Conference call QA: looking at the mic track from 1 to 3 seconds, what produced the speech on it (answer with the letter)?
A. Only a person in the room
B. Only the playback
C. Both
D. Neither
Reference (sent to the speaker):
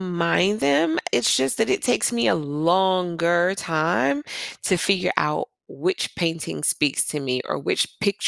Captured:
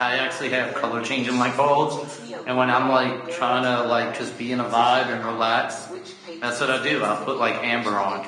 C